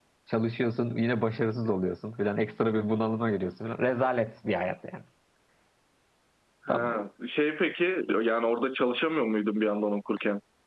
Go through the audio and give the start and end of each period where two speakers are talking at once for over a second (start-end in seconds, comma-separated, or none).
none